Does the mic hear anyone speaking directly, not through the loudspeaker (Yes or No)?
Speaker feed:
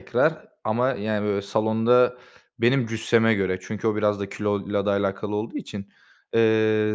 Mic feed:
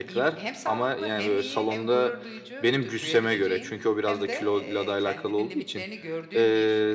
Yes